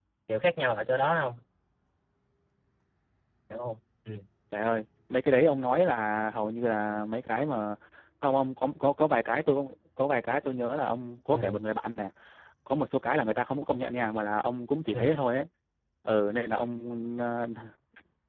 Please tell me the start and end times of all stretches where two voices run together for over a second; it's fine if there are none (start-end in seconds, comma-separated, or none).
none